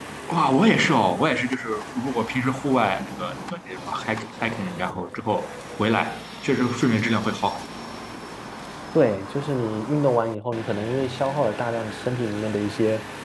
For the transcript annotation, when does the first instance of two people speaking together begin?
none

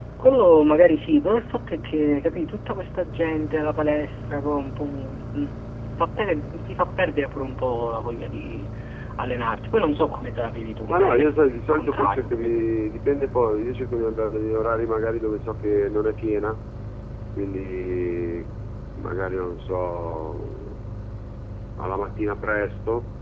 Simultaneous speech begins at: 10.9 s

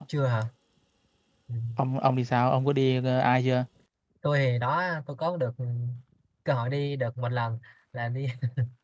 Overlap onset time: none

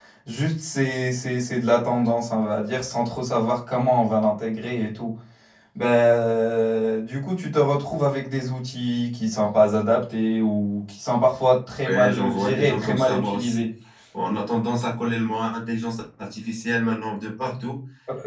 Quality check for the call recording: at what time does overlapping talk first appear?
11.8 s

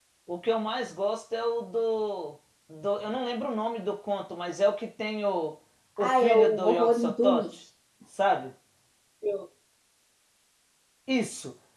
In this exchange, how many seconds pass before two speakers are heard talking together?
6.0 s

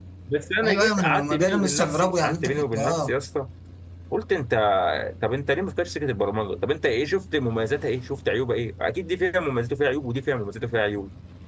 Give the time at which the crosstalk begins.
0.6 s

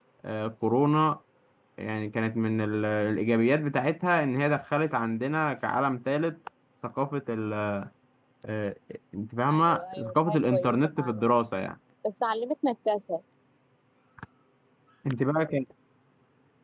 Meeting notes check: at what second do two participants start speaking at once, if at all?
9.5 s

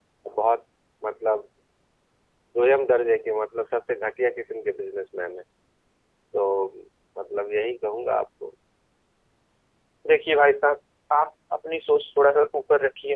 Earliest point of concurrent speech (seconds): none

